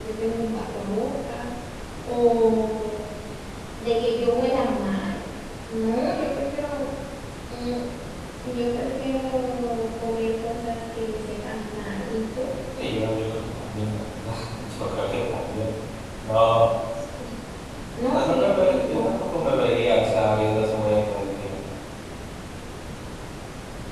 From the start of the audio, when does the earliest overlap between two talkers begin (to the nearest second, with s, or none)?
18 s